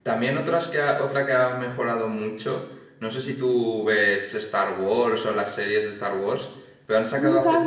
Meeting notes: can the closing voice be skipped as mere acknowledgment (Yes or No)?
No